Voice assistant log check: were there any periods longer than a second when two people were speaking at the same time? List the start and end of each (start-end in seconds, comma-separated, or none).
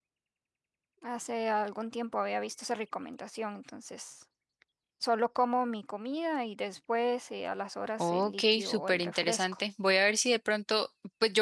8.0-9.4